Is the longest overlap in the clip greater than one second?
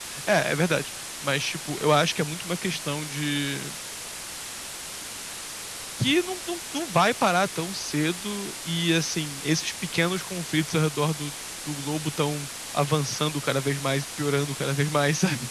No

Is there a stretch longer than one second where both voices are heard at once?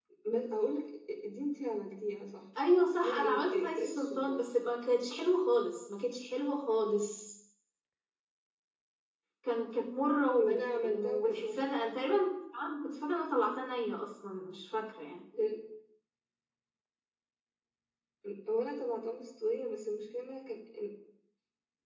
Yes, from 3.0 s

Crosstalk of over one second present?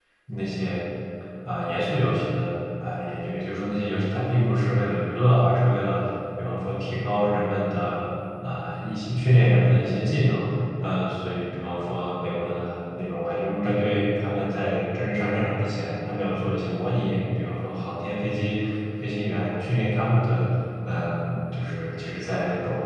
No

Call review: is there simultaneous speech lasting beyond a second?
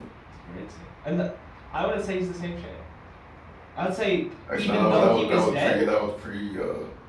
Yes, from 4.5 s

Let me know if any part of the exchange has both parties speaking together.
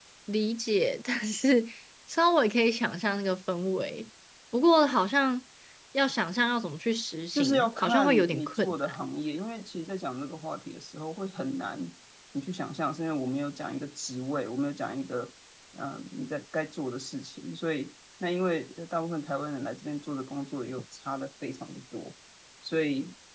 Yes, from 7.3 s

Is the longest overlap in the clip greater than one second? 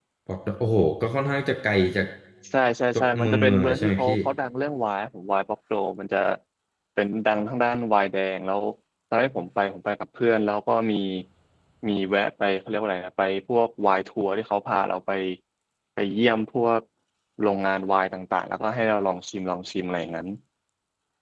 Yes, from 2.9 s

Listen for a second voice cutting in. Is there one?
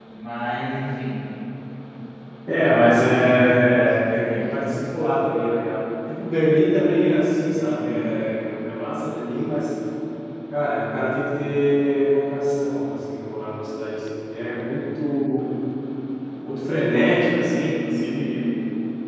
Yes, from 2.6 s

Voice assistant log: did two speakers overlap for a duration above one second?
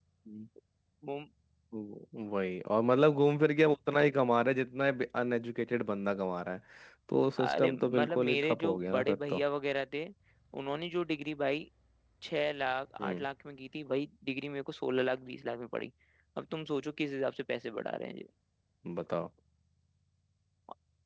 Yes, from 7.4 s

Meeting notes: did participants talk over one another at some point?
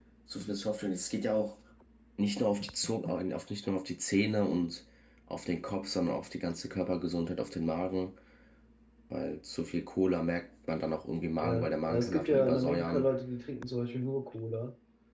Yes, from 11.4 s

